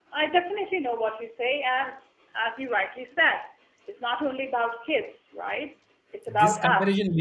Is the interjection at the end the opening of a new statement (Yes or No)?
Yes